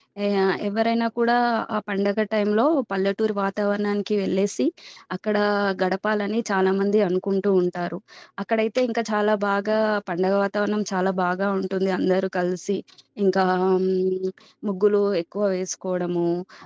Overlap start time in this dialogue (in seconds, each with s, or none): none